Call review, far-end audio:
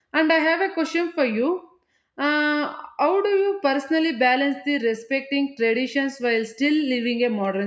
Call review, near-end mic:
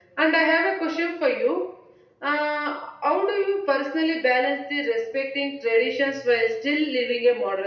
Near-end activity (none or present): none